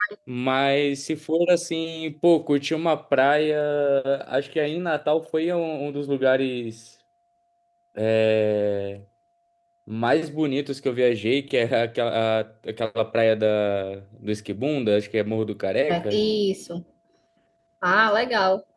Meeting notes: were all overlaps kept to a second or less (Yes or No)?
Yes